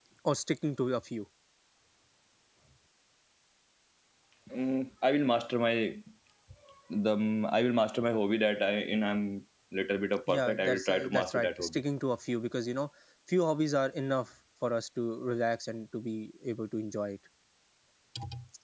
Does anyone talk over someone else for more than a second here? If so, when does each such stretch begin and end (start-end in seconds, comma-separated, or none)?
10.3-11.8